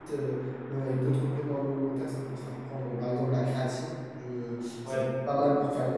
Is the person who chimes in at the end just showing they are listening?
Yes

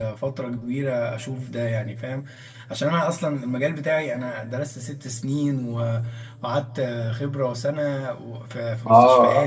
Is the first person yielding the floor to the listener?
Yes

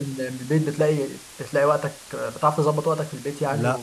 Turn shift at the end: Yes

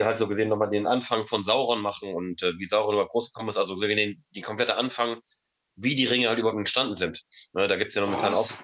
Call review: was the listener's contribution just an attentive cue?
Yes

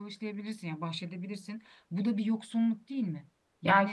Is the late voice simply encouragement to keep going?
No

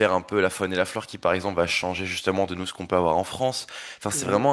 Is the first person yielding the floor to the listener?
No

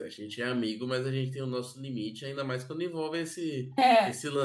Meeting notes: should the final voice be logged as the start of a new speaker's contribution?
No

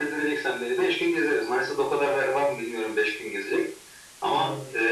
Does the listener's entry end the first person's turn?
No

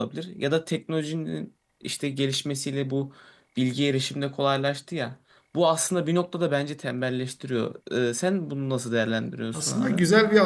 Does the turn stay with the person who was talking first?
No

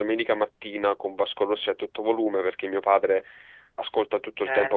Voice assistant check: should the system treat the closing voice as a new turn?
No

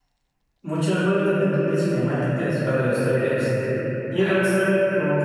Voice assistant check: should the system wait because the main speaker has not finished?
Yes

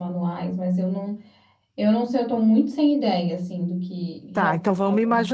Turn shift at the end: Yes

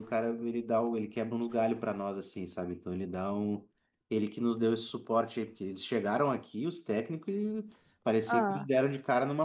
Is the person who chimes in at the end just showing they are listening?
Yes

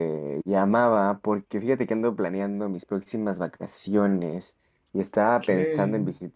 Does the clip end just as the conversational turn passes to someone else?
No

